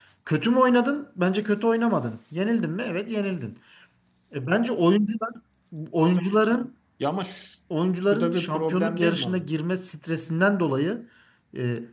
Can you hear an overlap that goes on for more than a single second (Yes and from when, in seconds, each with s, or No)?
Yes, from 8.1 s